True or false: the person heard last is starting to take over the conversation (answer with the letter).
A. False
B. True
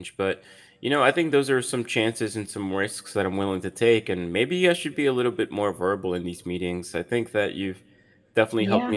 A